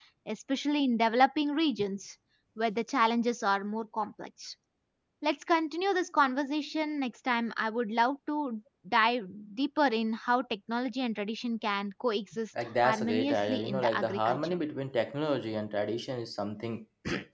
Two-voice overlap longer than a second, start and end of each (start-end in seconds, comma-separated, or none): 12.8-14.6